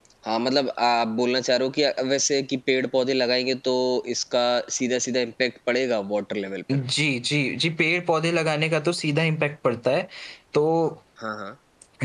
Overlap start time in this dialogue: none

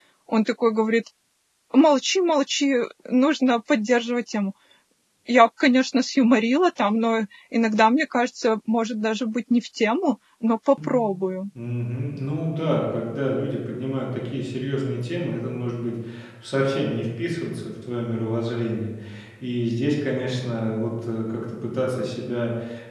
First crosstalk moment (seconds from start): none

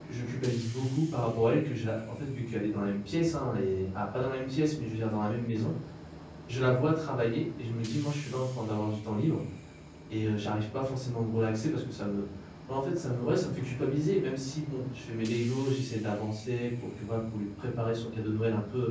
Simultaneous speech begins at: none

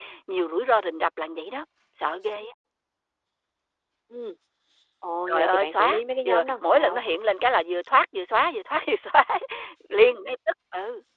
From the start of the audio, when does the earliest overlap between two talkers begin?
5 s

